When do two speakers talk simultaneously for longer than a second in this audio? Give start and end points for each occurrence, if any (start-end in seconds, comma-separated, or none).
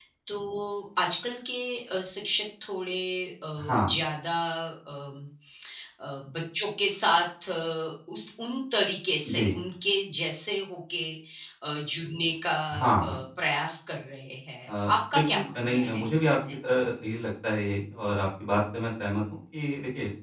14.7-16.4